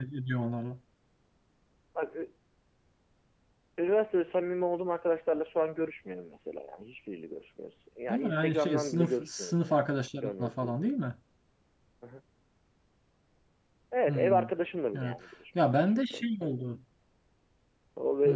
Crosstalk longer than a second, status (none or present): present